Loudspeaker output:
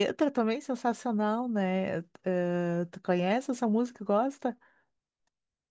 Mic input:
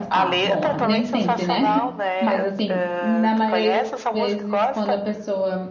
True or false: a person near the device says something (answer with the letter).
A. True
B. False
A